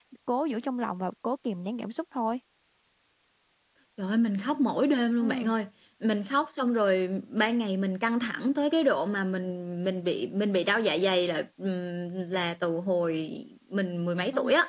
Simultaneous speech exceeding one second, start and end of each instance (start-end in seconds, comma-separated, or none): none